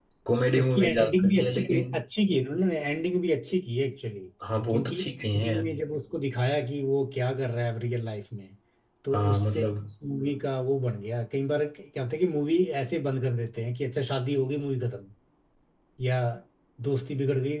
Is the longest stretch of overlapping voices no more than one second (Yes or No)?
No